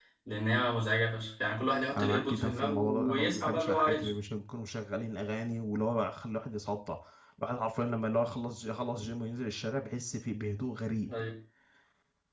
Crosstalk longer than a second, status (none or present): present